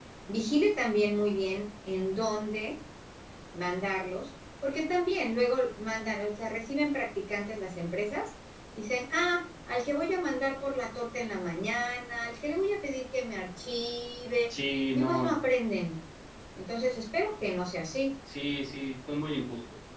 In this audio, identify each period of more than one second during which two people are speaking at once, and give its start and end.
none

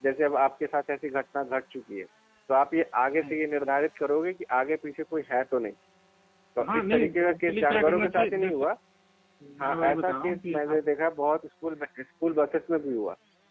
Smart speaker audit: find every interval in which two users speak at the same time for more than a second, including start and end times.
6.7-8.6, 9.6-10.8

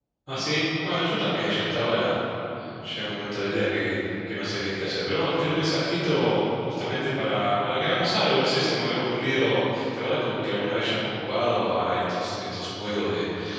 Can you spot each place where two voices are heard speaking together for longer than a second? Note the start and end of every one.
none

